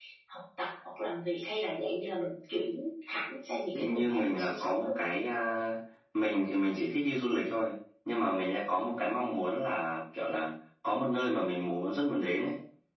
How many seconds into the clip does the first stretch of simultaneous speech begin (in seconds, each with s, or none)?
3.7 s